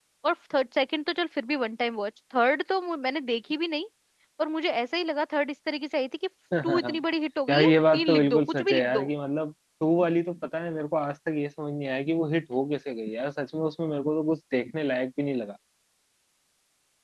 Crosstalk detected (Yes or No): Yes